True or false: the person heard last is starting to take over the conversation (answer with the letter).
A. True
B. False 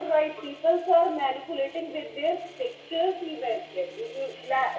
B